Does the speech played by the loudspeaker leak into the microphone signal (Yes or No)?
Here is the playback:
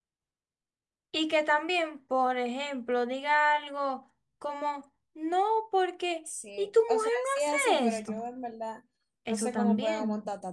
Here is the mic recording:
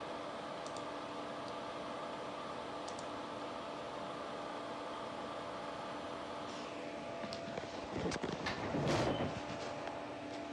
No